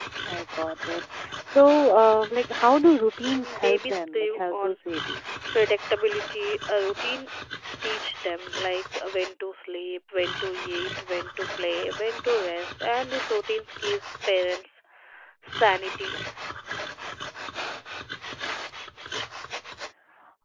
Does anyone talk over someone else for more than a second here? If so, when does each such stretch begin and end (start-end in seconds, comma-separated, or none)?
3.3-4.8